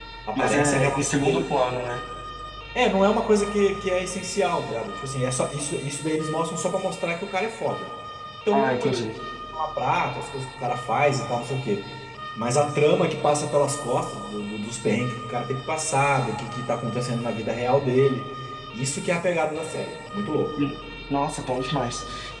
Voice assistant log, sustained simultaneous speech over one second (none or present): present